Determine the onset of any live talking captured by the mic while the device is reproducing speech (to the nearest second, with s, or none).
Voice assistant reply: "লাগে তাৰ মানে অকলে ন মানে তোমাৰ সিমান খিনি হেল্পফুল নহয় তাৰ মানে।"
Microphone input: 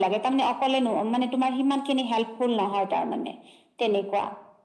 none